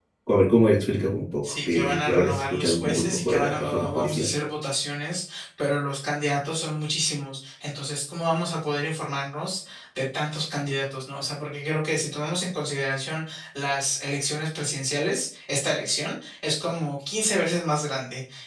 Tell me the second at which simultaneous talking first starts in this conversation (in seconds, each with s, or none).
1.4 s